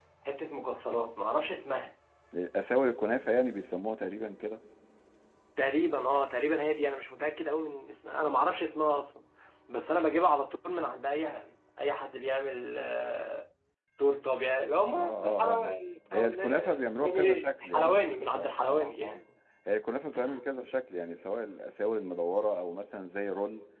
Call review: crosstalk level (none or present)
present